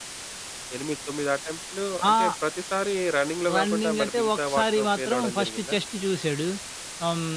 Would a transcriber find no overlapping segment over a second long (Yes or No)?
No